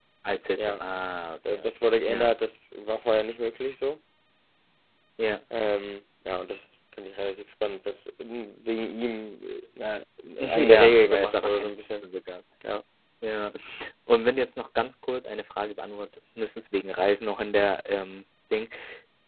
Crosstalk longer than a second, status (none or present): present